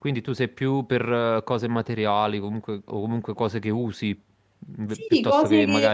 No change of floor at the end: No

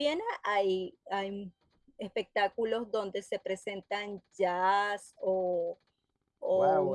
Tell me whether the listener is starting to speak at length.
Yes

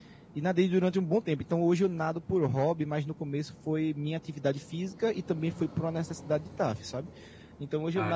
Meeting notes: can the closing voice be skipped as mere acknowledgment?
Yes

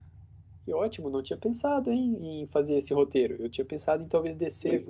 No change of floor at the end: Yes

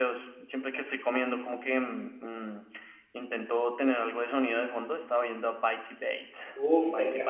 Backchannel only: No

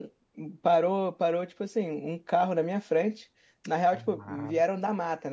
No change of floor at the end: Yes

